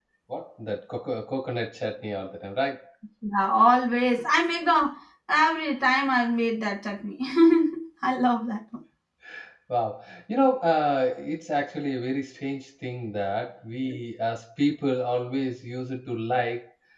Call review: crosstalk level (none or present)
none